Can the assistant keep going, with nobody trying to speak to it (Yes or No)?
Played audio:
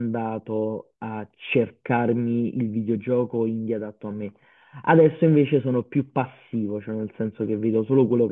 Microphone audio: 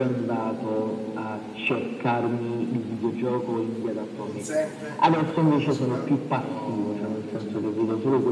No